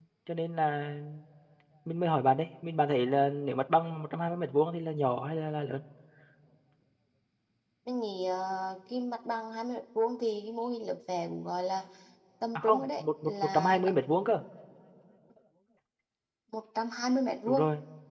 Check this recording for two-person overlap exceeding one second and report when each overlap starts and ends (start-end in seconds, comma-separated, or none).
12.6-13.9